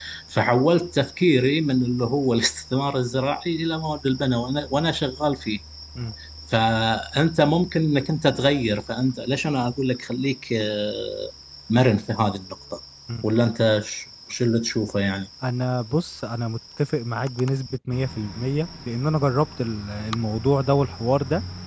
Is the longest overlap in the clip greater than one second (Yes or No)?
No